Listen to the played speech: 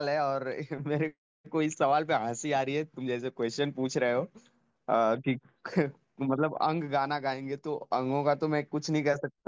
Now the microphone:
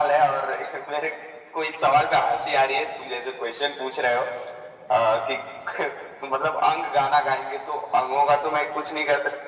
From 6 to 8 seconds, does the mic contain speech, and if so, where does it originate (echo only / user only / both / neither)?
echo only